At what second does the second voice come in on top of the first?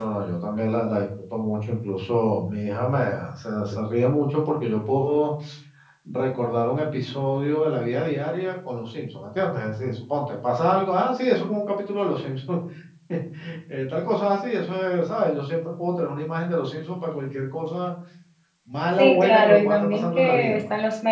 19 s

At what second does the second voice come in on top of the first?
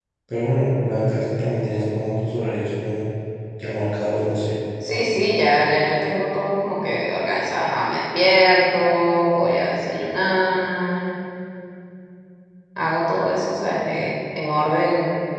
none

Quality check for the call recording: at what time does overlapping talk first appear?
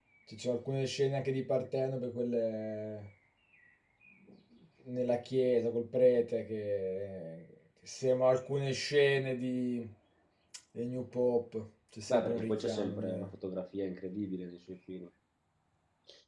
12 s

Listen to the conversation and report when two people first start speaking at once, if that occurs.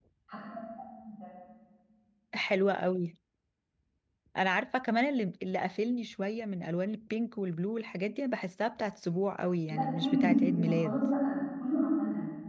10 s

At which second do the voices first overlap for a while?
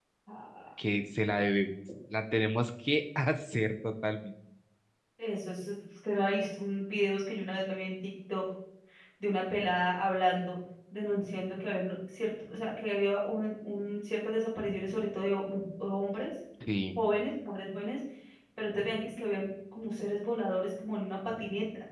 none

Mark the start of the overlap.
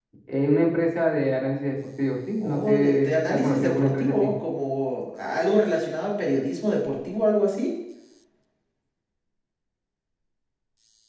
2 s

